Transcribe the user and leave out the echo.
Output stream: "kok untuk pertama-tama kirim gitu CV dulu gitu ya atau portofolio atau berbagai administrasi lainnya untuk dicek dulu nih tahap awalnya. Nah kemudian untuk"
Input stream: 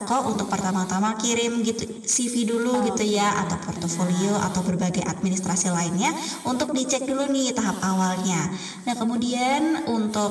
Oke, benar.

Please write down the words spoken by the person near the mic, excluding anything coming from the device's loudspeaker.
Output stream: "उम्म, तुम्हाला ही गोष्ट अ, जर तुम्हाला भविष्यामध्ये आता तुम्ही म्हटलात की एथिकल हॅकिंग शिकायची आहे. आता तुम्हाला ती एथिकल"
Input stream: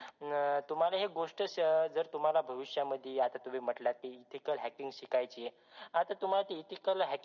none

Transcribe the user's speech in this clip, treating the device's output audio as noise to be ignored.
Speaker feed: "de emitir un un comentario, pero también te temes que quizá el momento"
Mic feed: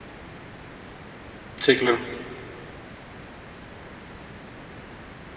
Sí, claro.

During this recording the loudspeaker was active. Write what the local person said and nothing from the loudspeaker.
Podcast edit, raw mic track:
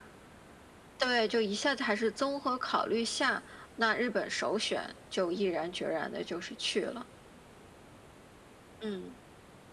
none

